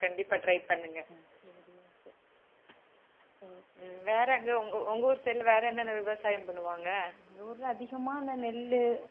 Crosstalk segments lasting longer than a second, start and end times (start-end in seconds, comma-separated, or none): none